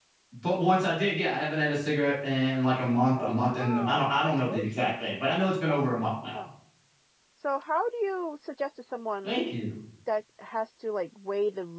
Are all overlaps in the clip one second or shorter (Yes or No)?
No